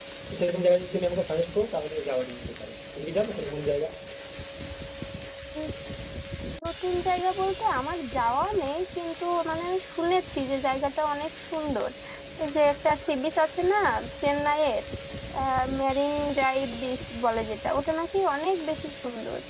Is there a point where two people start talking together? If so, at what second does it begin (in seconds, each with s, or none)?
none